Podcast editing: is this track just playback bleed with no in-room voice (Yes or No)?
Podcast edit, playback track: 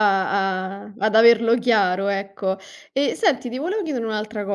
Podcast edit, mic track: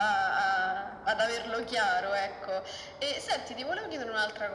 Yes